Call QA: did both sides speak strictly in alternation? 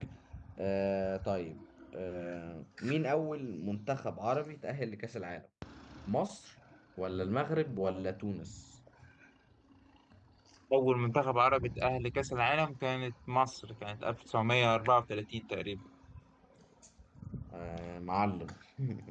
Yes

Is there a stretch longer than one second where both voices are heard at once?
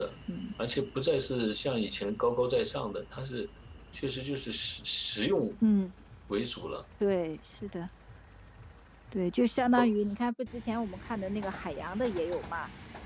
No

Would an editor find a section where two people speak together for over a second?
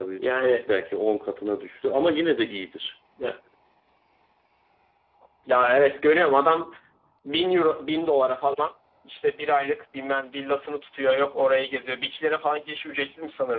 No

